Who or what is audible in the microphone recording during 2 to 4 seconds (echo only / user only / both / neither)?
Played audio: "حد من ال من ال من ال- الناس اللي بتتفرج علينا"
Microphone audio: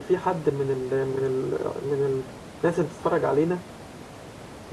echo only